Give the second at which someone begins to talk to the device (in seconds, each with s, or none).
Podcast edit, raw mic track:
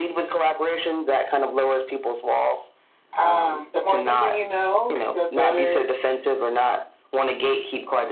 3.2 s